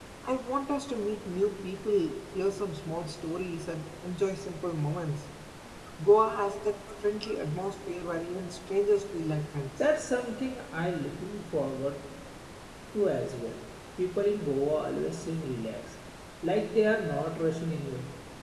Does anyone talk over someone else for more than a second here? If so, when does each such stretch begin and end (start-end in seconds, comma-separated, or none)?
none